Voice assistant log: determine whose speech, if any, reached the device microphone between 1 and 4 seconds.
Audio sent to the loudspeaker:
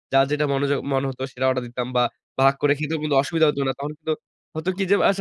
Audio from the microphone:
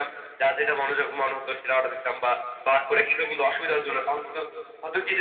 echo only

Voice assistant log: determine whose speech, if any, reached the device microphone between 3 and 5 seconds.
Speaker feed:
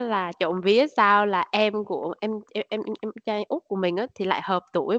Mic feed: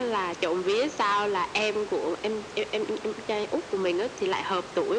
echo only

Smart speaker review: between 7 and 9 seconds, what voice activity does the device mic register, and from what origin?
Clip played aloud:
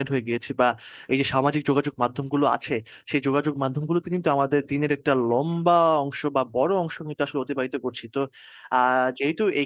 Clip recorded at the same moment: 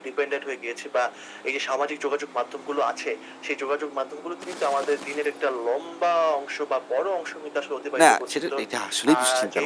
both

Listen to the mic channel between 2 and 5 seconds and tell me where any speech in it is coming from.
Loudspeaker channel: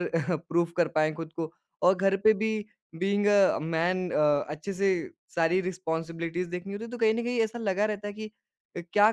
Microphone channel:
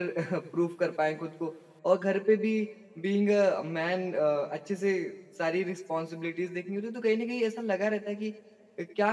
echo only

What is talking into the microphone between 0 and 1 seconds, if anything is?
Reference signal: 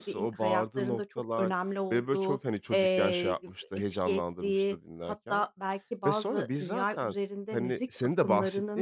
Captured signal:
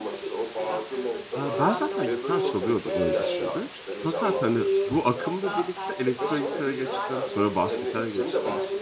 echo only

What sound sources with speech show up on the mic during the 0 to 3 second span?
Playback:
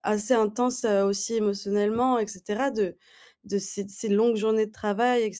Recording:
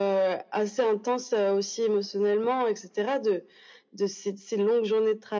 echo only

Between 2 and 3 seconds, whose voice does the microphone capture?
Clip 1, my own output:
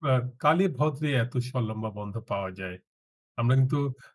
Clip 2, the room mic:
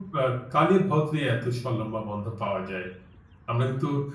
echo only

